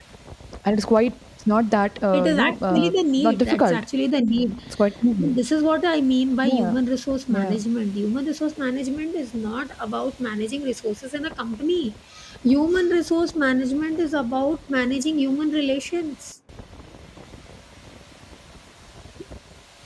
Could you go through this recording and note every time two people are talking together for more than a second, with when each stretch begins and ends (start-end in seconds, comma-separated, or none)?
2.1-3.8